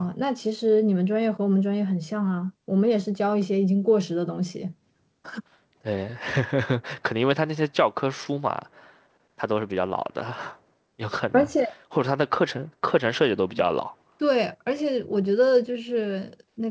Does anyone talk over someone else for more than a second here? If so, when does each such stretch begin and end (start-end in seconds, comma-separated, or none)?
none